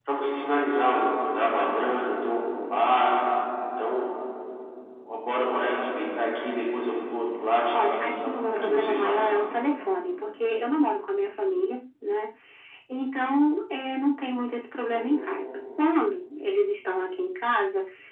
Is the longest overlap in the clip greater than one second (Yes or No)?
Yes